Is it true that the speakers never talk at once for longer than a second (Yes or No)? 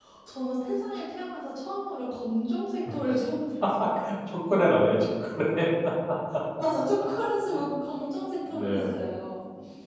Yes